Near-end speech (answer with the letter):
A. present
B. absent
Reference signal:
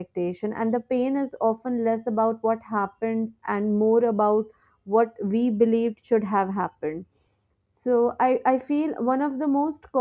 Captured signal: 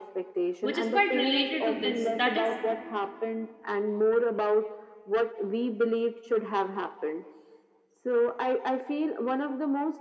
A